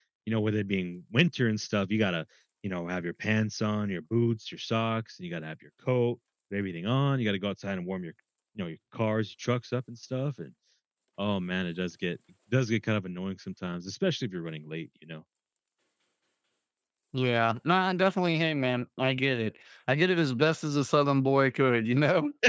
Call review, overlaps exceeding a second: none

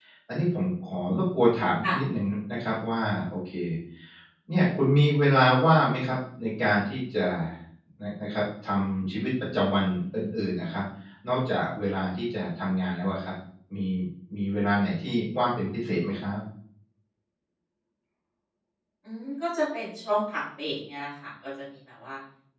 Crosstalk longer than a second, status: none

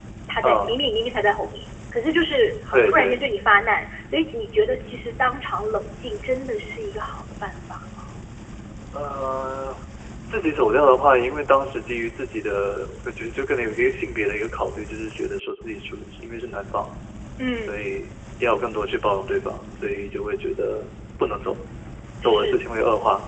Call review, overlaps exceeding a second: none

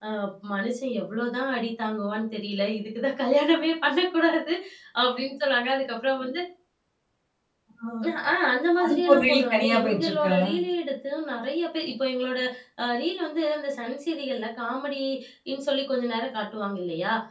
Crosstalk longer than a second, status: present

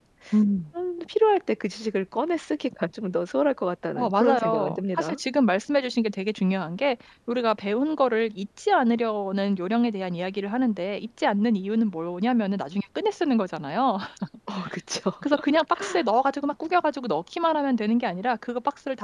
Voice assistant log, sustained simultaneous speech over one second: present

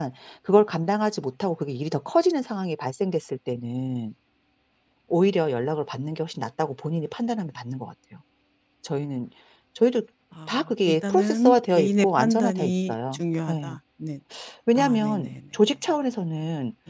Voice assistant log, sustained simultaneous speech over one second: present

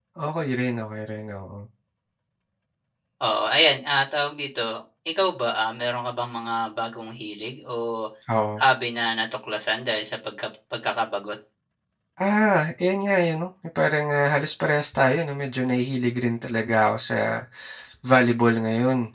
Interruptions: none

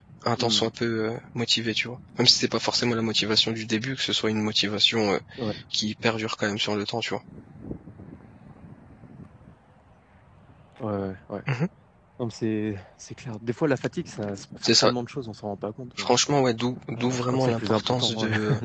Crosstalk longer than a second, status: present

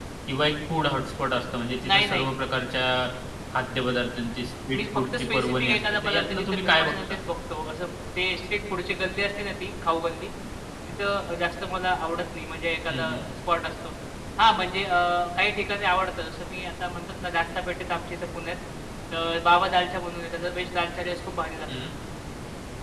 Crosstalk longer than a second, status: present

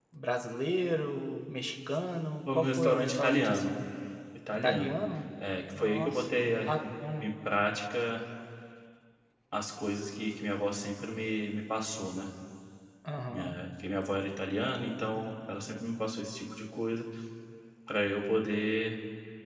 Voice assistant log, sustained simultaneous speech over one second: present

